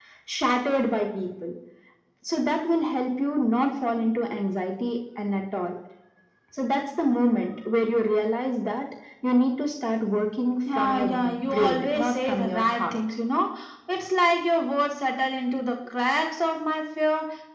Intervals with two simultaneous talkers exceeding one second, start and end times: 10.8-13.0

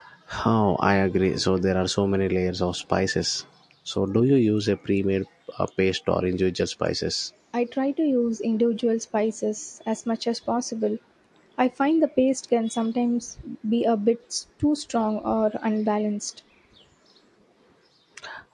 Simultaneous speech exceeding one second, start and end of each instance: none

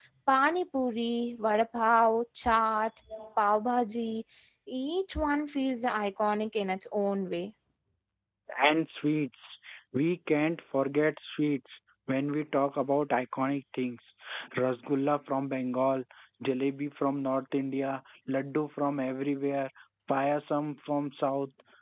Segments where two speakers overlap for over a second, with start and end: none

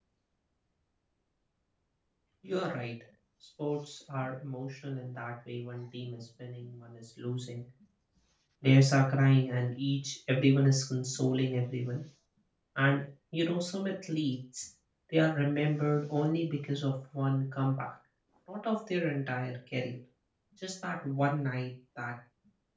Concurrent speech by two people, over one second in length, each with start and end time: none

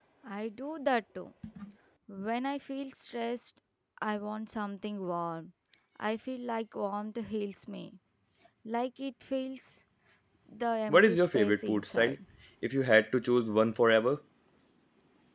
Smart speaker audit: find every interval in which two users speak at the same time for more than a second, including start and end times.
10.9-12.2

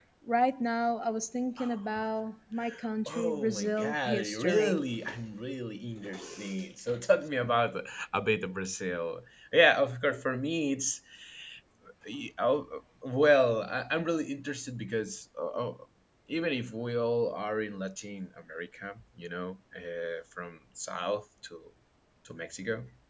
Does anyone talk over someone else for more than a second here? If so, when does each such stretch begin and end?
3.1-4.8

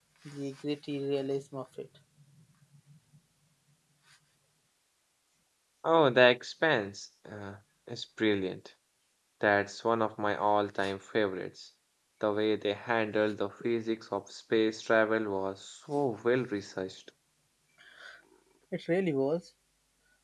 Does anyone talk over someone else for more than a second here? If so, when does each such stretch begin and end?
none

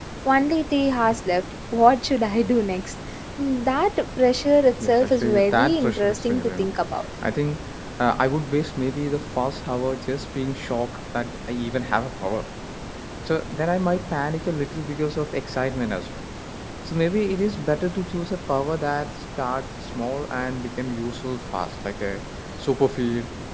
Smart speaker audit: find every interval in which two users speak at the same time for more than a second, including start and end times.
4.8-6.7

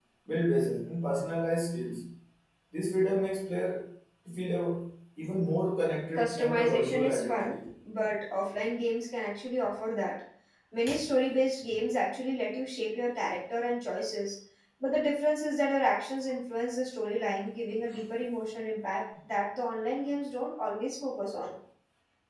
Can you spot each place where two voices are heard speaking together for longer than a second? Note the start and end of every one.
6.1-7.5

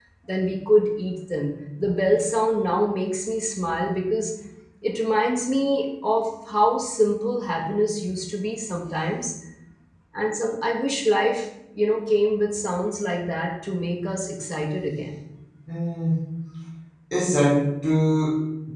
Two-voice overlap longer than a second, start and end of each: none

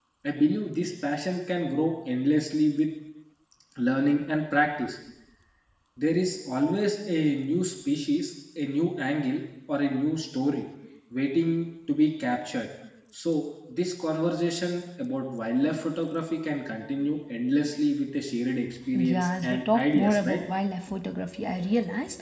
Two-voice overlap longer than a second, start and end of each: 18.9-20.4

